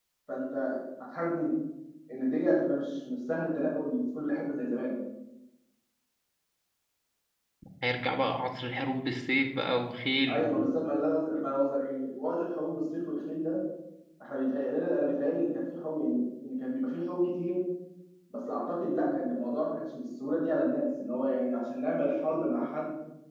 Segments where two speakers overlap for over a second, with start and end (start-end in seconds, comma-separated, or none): none